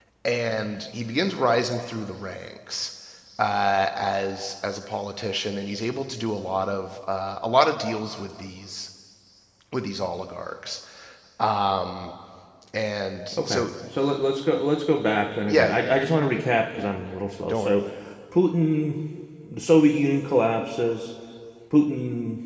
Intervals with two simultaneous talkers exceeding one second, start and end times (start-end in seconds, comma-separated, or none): none